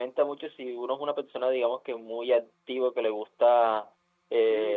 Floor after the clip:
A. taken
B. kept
B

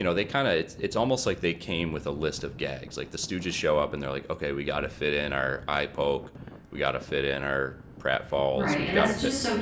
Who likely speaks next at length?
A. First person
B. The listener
B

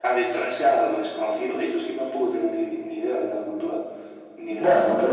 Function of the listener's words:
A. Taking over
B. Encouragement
A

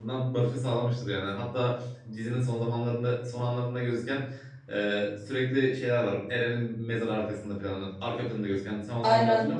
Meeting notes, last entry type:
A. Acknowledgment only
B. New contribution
B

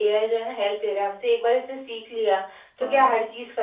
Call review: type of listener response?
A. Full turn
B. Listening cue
B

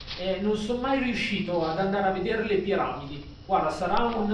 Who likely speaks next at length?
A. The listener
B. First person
B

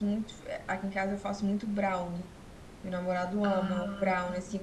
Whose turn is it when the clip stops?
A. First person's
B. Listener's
A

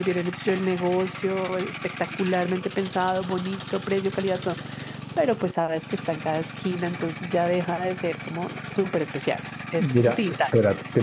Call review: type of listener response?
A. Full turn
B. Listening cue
A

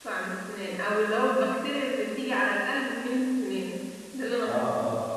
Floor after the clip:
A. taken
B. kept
A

